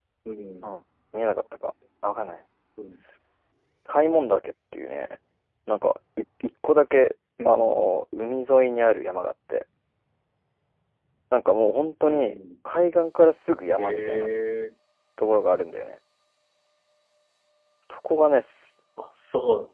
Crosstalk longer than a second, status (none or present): none